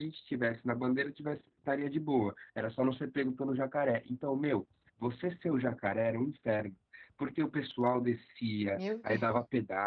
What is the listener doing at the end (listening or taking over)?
listening